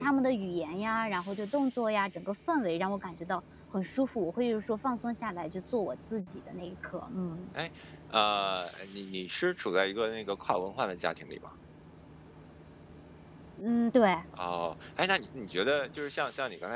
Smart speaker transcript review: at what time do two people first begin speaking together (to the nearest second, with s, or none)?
none